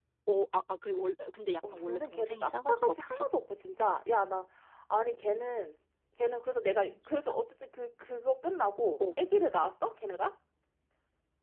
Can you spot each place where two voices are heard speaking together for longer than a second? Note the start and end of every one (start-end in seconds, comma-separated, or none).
1.7-3.2